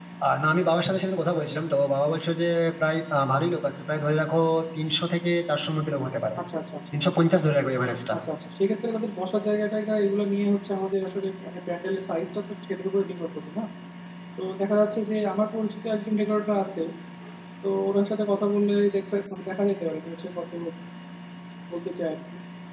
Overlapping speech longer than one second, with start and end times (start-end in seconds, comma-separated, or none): none